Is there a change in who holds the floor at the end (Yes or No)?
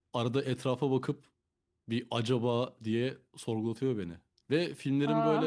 No